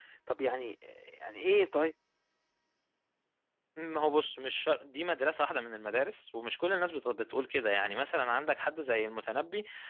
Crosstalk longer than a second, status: none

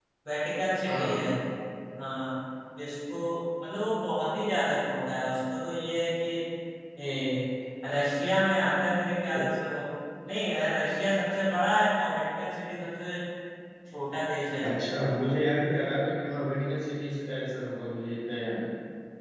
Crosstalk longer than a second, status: none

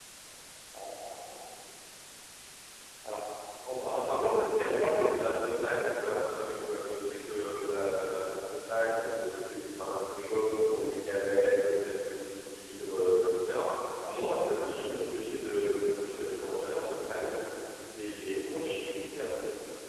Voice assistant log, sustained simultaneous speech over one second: none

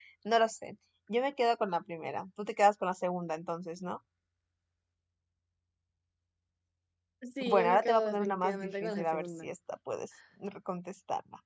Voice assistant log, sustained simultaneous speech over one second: present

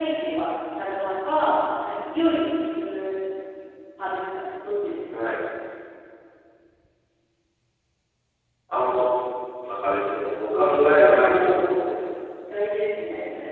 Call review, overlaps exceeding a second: present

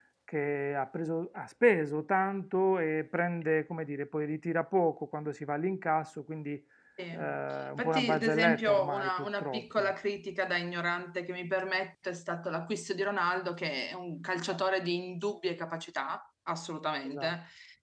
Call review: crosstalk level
present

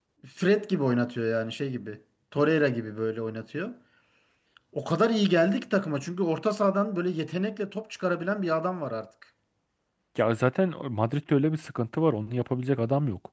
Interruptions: none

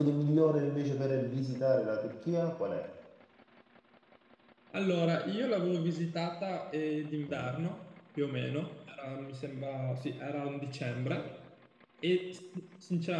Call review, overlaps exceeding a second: none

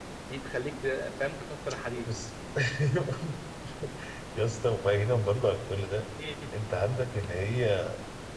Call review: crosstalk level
none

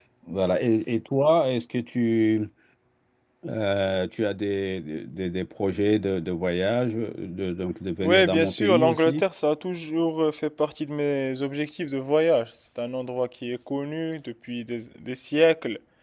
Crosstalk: present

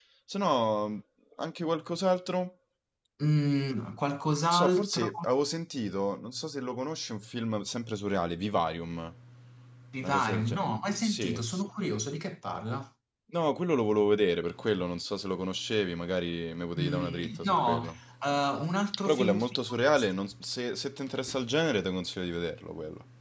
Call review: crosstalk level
present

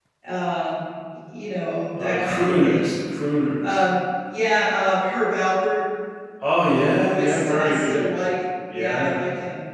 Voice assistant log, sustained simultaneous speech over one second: present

